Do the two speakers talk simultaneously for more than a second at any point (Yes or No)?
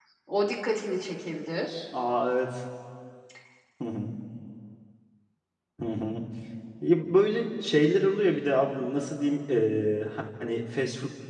No